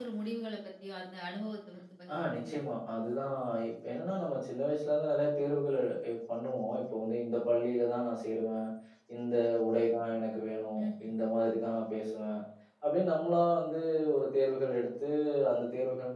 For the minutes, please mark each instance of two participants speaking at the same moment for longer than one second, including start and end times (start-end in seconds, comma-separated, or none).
none